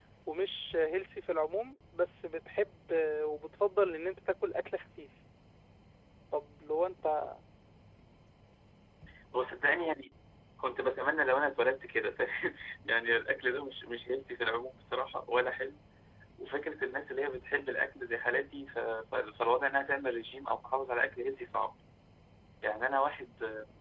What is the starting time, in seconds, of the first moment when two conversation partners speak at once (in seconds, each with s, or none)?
none